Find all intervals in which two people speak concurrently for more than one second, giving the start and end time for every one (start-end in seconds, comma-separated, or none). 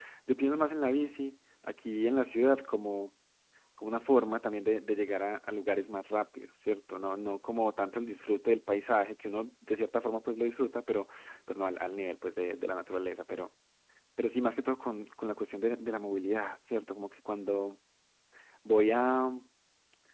none